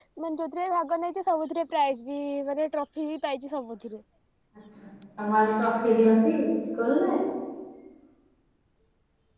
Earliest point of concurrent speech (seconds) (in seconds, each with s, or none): none